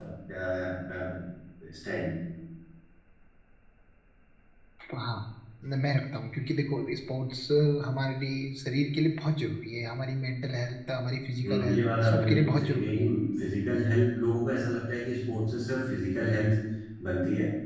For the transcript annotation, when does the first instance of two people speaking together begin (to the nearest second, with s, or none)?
11 s